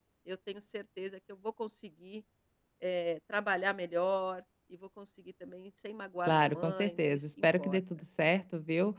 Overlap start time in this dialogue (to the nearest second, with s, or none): 6 s